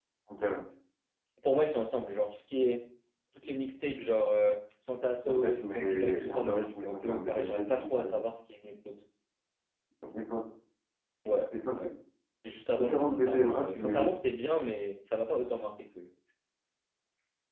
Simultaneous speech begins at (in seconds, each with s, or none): 5.2 s